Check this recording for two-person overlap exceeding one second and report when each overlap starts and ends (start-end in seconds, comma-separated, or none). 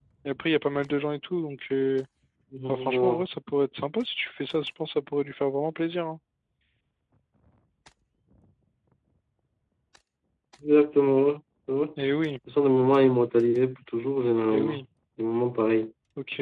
none